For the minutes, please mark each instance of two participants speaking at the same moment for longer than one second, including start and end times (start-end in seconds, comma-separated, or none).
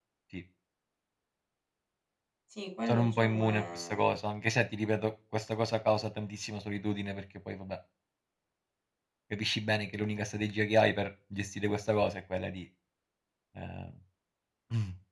2.9-4.1